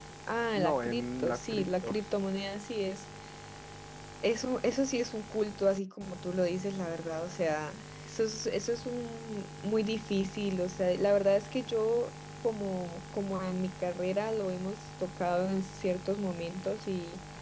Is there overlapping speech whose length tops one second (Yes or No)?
Yes